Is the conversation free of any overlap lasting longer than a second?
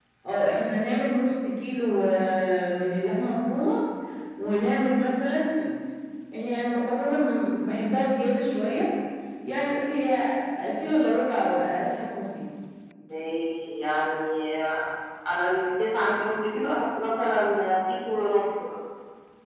Yes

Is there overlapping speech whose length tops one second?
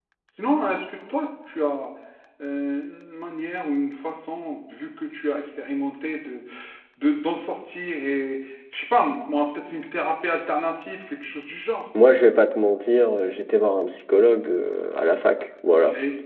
No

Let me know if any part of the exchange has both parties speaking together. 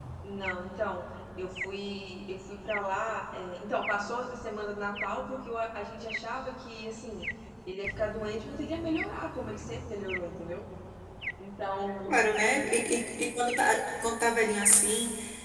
No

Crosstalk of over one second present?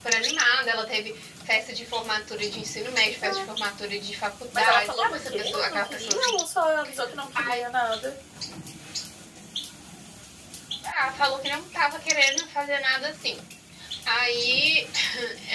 Yes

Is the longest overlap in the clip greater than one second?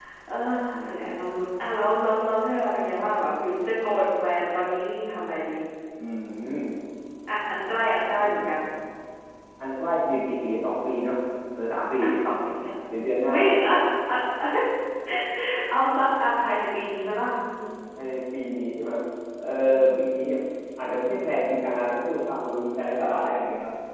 No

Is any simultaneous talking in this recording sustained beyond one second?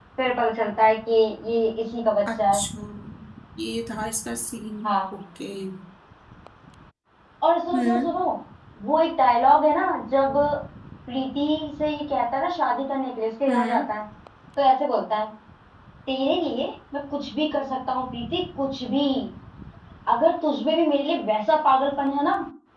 No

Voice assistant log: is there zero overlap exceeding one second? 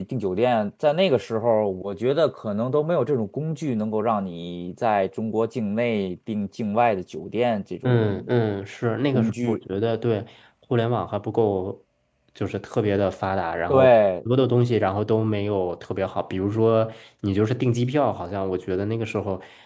Yes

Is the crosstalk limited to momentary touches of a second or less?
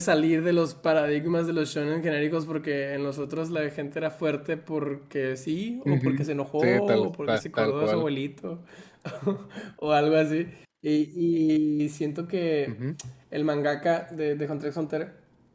No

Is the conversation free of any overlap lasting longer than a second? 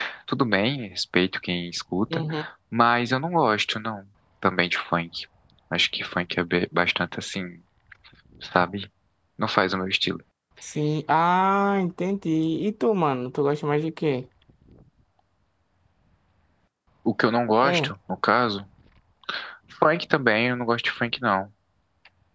Yes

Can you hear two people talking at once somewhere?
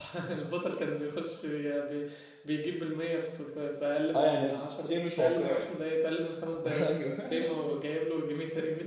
Yes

